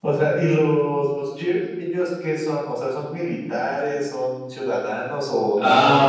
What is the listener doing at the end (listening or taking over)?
taking over